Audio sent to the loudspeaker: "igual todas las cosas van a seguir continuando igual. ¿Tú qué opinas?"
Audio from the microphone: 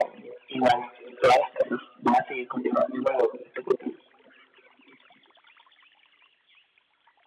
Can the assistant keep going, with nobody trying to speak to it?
Yes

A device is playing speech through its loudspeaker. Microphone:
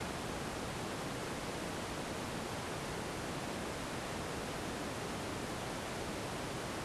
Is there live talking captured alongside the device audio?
No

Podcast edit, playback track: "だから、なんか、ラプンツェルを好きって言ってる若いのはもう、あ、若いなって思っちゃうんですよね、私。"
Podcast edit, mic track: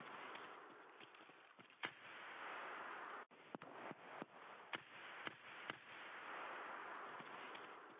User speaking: No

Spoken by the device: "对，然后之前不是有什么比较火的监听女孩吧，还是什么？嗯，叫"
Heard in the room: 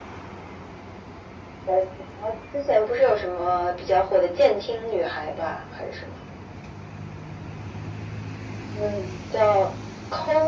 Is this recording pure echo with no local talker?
Yes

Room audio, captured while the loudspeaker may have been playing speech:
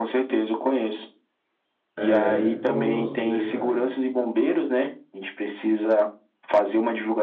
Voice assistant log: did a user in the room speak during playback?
Yes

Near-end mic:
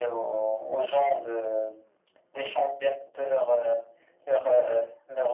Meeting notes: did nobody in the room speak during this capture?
Yes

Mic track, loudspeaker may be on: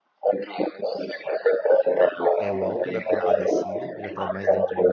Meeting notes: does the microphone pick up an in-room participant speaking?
Yes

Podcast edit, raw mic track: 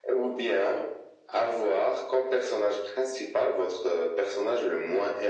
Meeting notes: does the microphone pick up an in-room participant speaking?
No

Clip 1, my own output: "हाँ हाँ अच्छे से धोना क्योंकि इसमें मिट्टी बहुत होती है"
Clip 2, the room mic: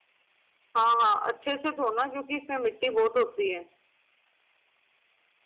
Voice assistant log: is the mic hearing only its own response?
Yes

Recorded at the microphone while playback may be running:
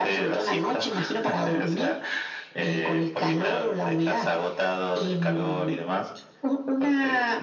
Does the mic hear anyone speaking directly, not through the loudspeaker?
No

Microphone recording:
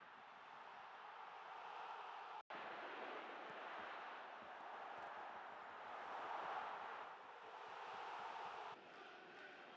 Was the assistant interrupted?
No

